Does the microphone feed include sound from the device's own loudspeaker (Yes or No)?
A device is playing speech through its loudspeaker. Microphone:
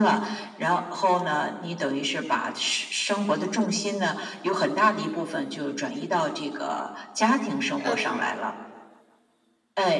Yes